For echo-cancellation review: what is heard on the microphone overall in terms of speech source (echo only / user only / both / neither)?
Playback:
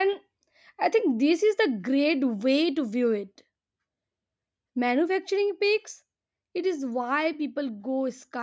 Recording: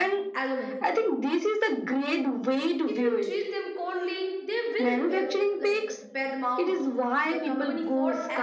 both